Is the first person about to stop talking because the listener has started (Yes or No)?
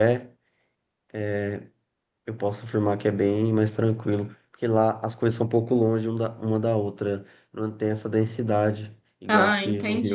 Yes